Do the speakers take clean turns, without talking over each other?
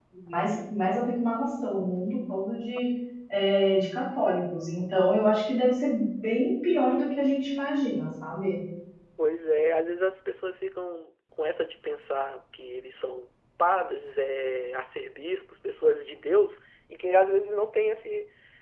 Yes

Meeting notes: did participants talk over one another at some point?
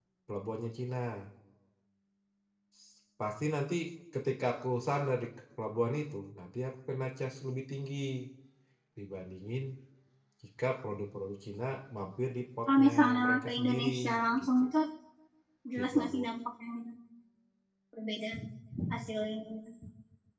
Yes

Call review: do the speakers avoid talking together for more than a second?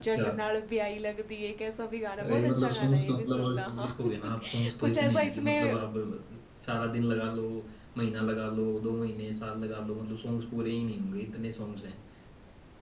No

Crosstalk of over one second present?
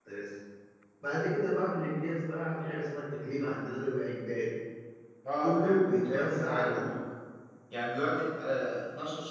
Yes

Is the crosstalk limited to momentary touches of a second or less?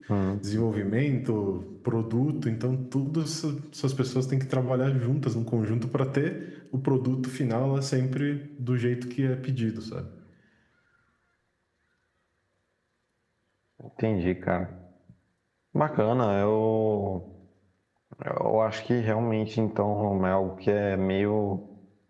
Yes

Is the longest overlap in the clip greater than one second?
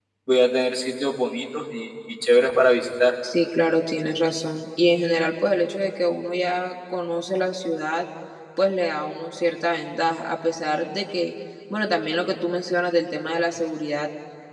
No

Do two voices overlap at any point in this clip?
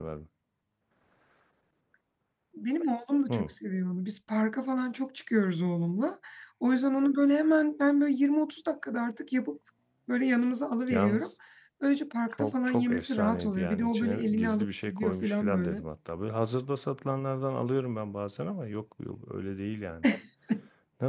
Yes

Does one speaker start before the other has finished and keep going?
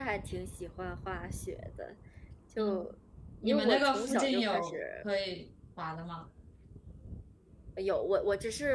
Yes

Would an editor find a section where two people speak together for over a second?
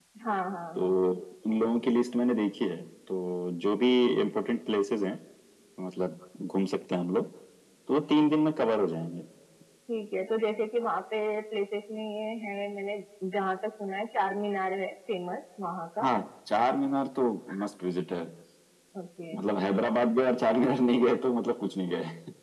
No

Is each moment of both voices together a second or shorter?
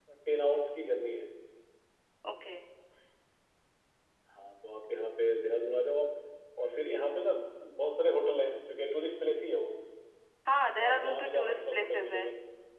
No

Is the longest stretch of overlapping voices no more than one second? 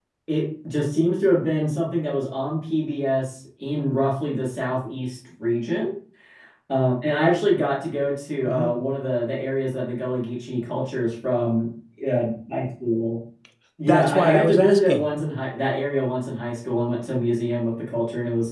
No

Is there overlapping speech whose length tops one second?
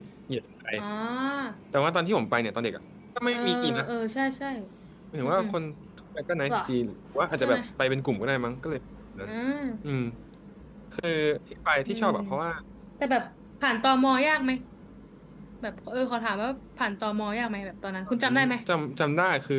No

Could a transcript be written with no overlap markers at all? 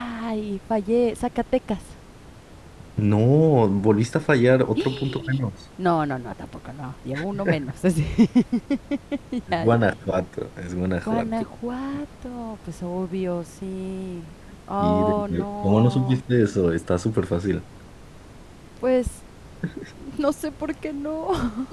No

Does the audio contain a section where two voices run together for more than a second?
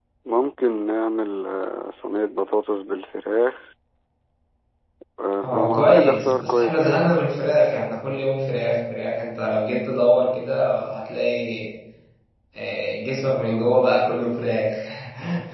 Yes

